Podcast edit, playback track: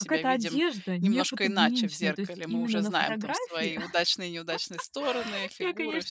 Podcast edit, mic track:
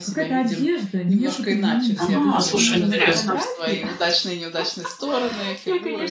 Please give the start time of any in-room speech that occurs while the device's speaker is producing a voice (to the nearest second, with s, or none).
2 s